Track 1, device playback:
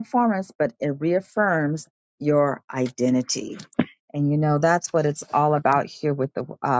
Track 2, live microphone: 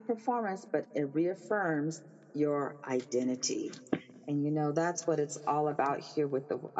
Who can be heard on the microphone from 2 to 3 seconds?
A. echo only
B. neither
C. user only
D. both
A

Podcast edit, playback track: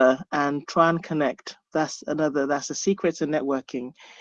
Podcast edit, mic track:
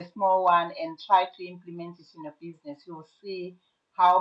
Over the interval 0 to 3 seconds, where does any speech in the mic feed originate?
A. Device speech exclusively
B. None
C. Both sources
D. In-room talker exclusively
D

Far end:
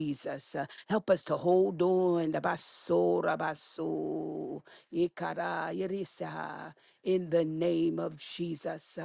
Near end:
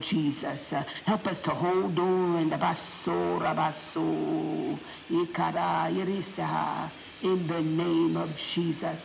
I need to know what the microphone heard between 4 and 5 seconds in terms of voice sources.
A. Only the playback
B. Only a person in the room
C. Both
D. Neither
A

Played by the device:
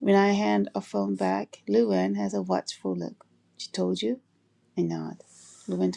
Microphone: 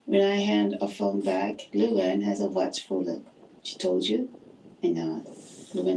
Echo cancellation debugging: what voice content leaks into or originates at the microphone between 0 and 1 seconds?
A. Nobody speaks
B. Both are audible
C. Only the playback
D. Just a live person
C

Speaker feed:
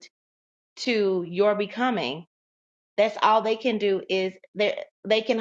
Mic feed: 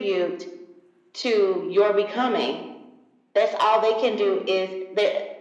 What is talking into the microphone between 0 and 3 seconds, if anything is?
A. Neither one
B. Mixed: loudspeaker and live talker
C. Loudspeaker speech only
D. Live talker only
C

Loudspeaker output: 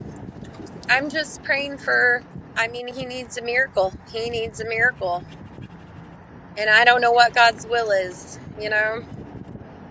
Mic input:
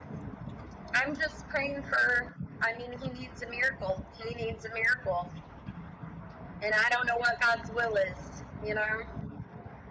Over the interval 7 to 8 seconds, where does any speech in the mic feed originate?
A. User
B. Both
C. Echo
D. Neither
C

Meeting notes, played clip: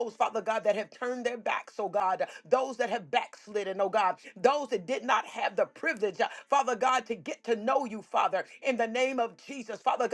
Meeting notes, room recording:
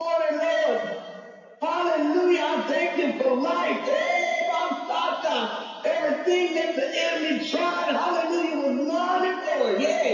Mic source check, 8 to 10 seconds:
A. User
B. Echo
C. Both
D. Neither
A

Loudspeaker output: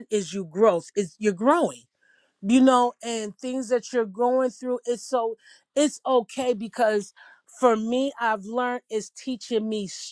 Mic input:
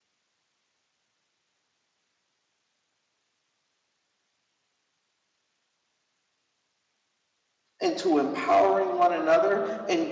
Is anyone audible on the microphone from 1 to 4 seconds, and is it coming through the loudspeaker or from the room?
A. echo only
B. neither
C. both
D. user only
B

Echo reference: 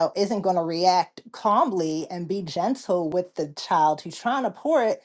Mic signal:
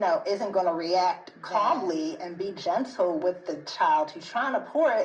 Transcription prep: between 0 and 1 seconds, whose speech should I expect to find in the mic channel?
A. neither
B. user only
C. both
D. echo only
D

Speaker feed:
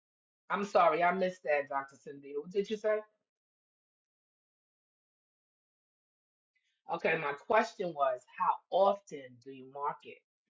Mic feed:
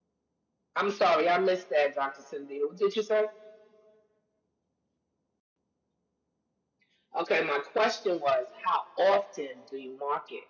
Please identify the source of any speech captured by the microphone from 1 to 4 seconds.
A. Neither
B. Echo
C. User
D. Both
B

